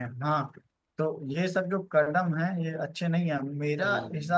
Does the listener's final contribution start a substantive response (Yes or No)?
No